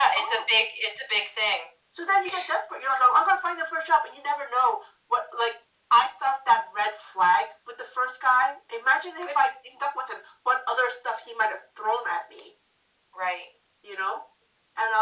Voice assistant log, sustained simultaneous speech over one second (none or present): none